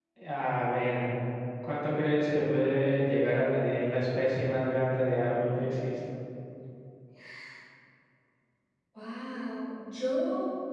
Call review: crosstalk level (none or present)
none